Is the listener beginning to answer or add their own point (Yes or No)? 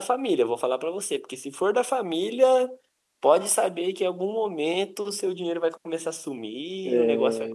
No